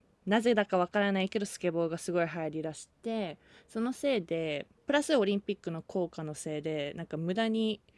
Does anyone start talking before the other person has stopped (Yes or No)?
No